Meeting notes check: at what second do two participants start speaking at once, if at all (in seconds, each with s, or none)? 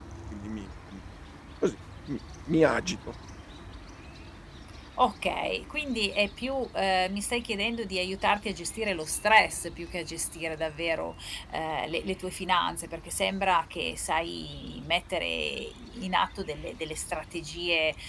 none